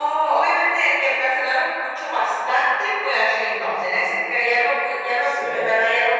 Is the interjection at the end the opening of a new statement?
No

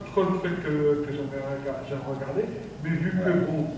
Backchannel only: Yes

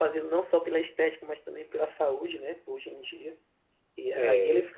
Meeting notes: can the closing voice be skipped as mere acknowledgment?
Yes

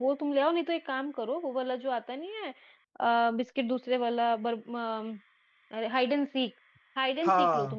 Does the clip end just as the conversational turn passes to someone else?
No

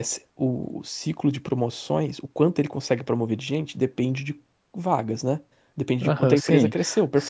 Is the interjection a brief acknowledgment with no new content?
No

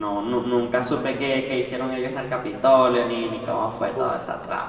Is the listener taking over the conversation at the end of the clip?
Yes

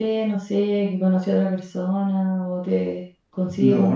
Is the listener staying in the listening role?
No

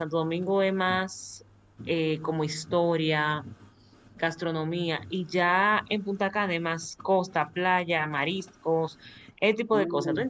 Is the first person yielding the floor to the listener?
Yes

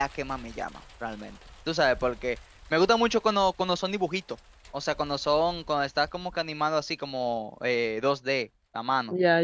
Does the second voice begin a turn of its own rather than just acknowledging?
Yes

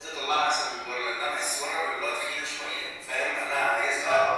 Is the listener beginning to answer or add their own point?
No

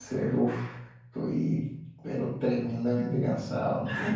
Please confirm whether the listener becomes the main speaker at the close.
Yes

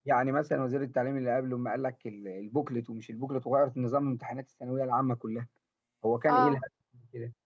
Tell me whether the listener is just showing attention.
Yes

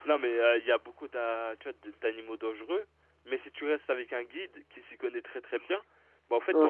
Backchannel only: No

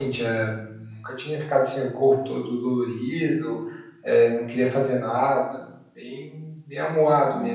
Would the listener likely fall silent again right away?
No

